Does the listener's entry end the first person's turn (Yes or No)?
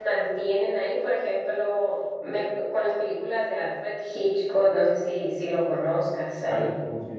Yes